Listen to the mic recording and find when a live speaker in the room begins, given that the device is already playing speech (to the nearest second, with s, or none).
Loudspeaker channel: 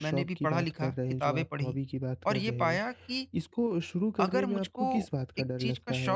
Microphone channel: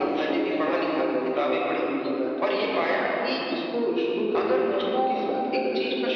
none